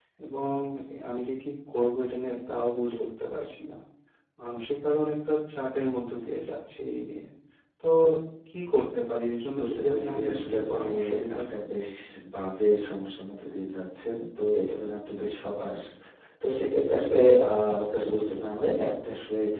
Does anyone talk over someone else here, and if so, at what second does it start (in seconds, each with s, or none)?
9.5 s